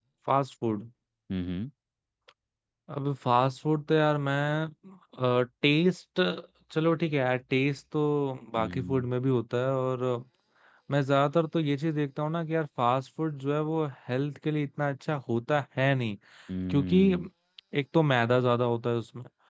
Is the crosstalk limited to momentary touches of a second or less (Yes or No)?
Yes